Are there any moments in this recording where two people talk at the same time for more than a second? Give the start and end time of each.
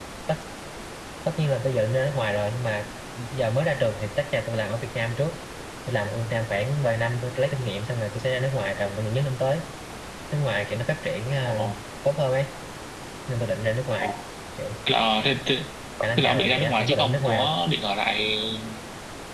16.2-17.5

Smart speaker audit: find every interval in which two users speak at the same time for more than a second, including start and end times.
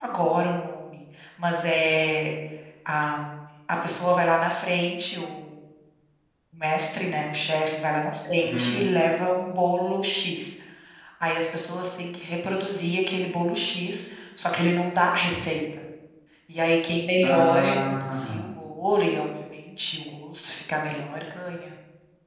17.2-18.4

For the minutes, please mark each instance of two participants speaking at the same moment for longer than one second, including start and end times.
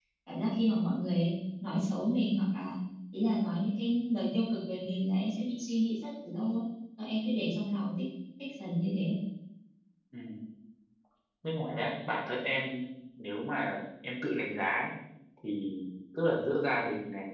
none

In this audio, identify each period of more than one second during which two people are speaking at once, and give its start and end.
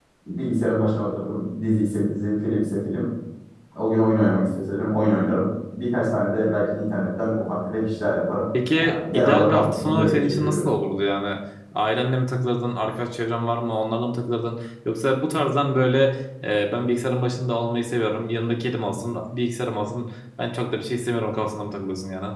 8.8-10.7

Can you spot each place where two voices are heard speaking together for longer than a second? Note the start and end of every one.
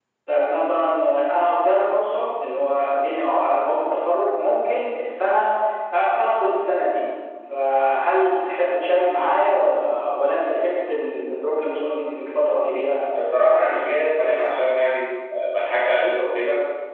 none

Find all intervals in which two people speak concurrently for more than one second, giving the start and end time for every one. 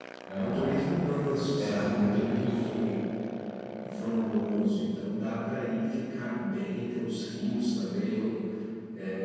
1.6-2.9

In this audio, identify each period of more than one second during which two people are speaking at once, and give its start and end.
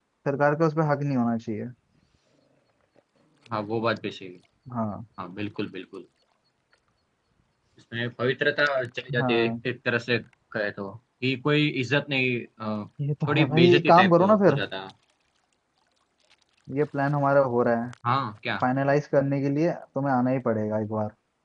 13.3-14.6

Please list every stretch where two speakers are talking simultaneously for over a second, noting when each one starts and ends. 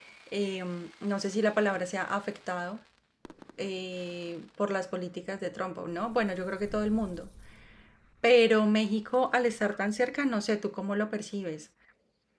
none

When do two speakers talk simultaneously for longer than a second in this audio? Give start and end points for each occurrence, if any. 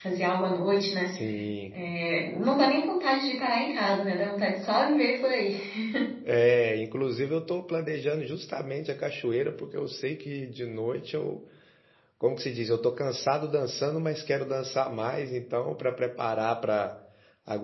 none

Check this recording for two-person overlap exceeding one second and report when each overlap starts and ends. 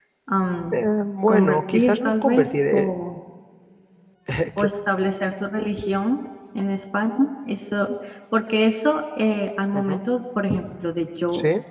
1.3-2.9

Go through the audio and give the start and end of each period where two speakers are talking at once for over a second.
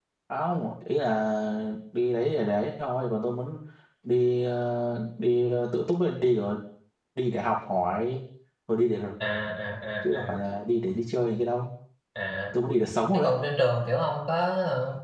none

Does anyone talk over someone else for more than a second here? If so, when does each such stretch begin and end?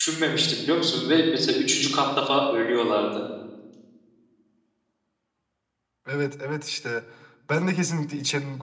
none

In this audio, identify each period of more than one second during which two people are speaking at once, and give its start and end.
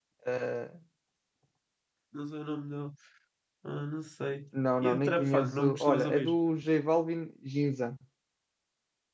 4.8-6.3

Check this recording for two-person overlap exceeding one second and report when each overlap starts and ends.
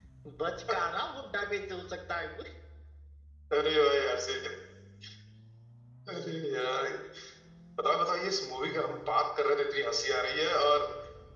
none

